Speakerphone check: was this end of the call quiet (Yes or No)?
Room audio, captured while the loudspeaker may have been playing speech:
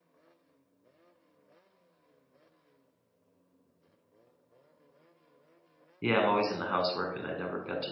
No